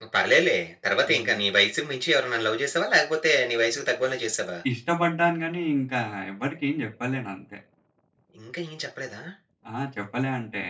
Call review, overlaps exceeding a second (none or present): none